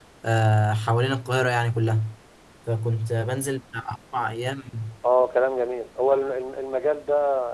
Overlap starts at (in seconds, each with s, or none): none